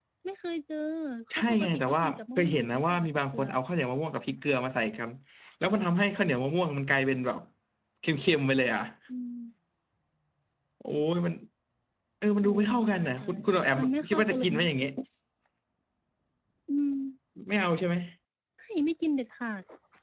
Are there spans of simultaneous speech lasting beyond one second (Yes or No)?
Yes